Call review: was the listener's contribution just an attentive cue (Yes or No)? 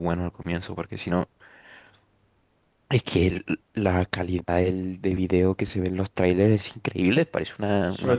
No